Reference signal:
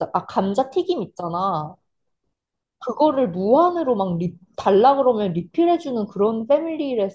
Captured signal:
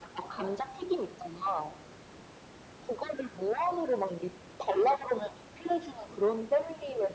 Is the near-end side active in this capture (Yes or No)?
No